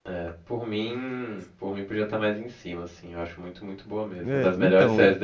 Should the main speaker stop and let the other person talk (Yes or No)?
Yes